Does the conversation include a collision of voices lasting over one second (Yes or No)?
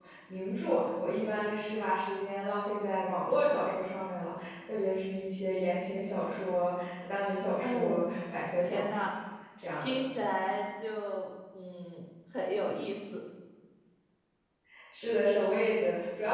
No